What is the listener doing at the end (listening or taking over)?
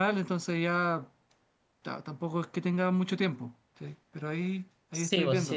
taking over